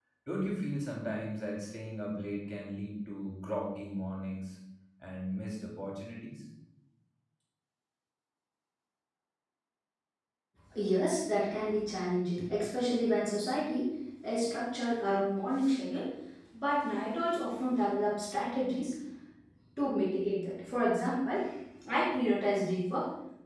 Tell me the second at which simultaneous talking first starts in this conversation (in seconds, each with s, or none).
none